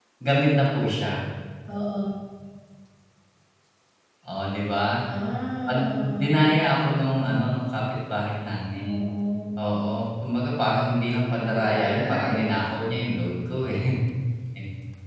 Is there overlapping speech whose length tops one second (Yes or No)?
Yes